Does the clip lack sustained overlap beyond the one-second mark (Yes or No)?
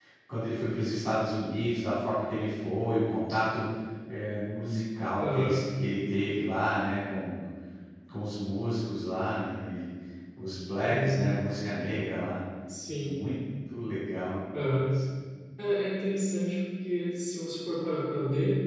Yes